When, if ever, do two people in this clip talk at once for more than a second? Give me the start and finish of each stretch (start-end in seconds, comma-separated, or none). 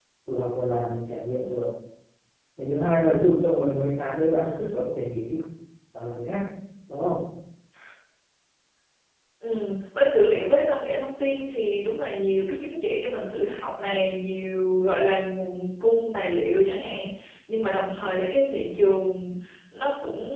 none